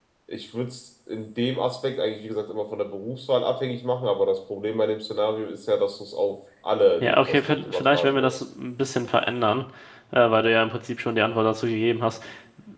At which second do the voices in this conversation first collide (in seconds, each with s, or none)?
7.0 s